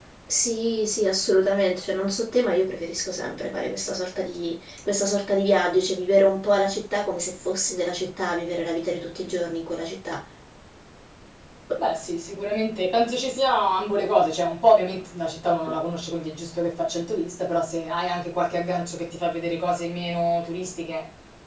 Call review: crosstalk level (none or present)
none